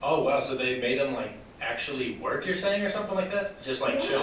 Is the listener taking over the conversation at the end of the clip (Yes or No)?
Yes